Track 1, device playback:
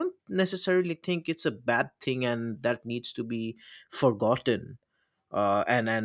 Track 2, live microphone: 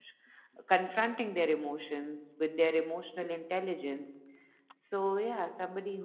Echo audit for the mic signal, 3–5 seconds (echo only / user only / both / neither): user only